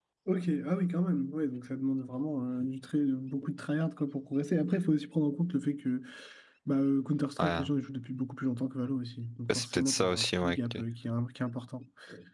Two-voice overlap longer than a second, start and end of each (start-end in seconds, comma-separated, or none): 9.5-10.8